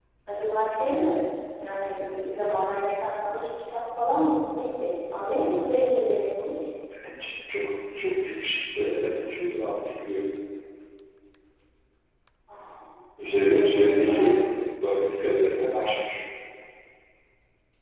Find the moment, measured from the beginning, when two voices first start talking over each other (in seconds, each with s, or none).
13.2 s